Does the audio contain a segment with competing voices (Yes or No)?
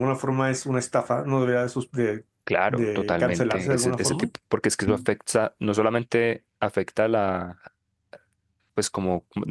Yes